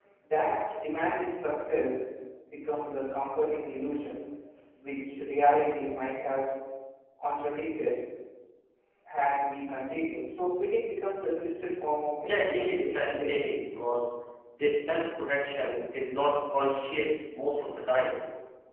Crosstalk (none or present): present